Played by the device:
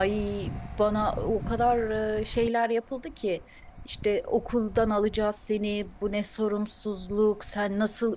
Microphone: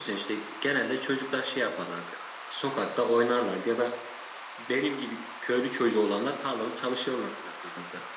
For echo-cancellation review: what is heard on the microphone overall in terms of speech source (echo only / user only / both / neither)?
user only